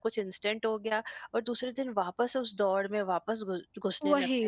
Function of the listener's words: listening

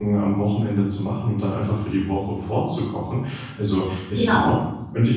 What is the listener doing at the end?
listening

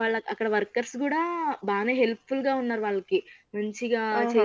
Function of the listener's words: listening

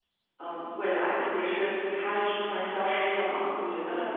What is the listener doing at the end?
taking over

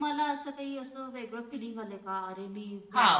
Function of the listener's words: taking over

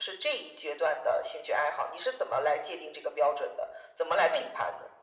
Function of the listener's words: taking over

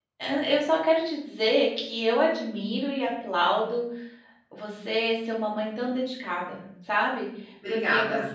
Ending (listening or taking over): listening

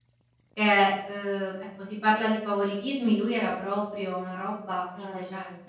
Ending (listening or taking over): listening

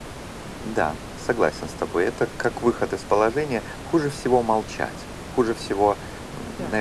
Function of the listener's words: listening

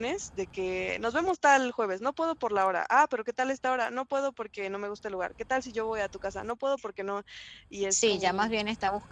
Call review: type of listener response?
taking over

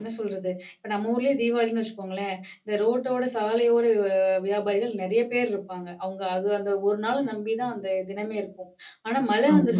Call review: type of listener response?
listening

